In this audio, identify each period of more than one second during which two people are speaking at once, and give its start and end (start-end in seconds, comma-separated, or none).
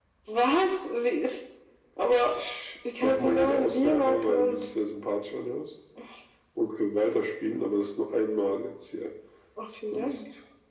3.0-4.6